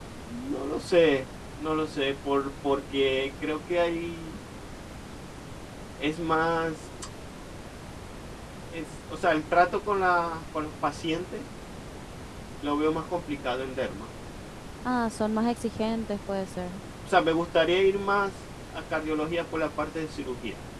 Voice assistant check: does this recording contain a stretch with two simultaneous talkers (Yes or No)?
No